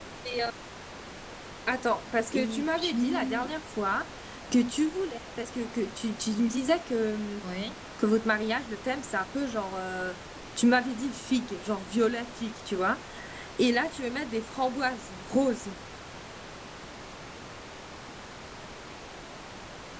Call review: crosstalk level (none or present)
present